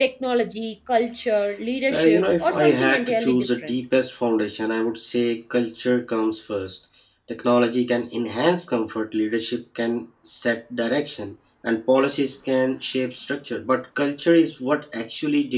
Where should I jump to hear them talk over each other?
1.9 s

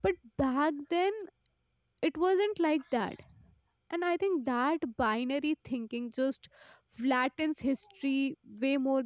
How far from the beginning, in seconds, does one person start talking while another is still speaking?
none

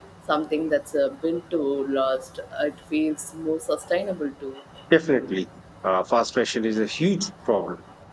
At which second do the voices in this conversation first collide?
none

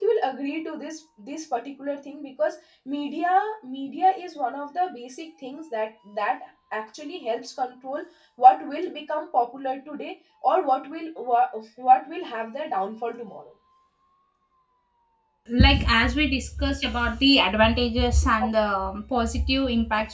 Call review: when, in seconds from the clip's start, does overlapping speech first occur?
none

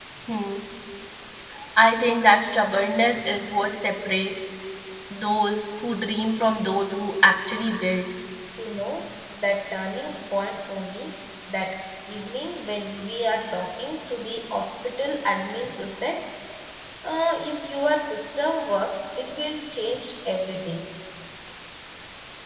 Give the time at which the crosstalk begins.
none

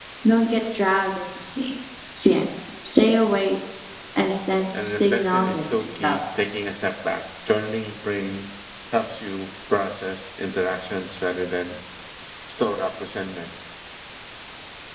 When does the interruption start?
4.8 s

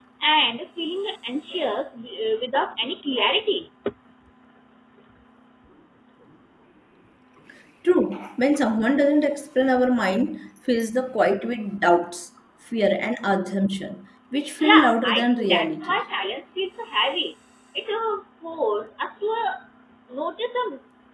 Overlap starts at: 14.6 s

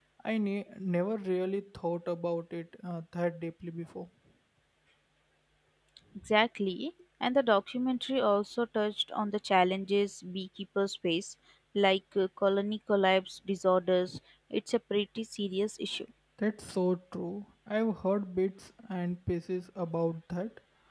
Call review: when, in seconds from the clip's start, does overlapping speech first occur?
none

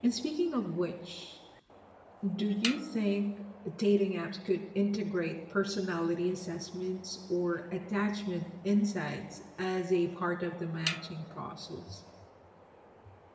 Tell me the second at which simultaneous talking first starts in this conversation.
none

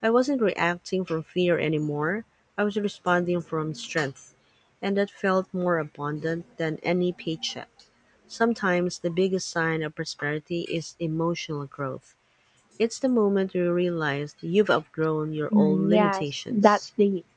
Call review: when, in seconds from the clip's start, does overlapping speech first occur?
15.5 s

